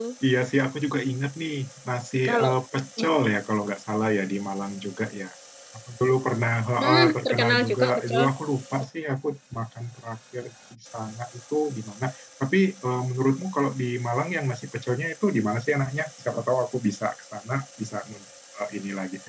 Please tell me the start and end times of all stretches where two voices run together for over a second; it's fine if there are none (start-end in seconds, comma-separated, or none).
6.8-8.2